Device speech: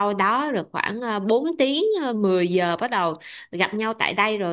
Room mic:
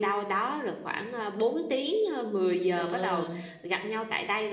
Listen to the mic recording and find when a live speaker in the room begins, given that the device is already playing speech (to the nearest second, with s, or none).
3 s